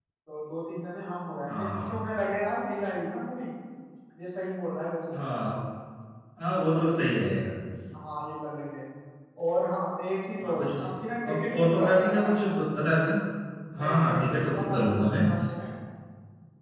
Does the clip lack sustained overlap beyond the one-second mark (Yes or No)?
No